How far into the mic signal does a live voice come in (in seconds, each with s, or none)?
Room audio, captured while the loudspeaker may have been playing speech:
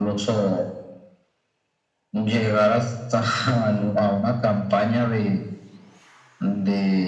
none